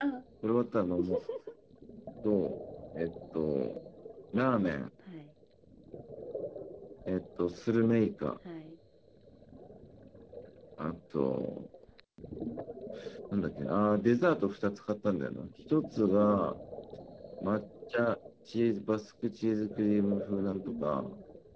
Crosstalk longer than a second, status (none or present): none